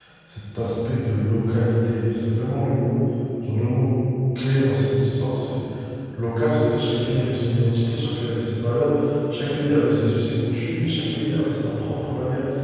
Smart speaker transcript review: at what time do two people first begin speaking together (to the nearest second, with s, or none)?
none